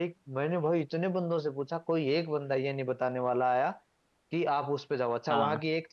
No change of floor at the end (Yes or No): Yes